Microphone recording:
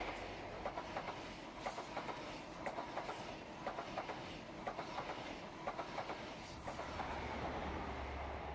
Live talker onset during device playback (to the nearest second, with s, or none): none